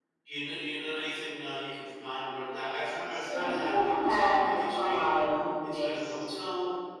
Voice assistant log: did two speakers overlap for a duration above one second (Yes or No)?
Yes